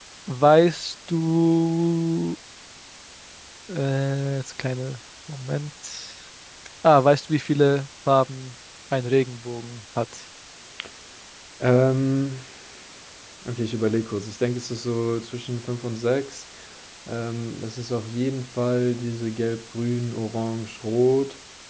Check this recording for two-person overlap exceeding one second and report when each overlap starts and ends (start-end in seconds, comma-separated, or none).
none